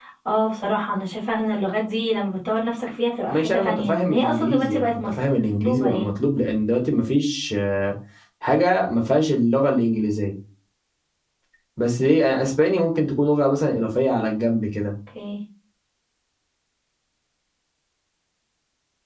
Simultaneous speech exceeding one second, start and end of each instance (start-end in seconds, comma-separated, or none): 3.3-5.0